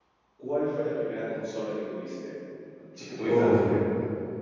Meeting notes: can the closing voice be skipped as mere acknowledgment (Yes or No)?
No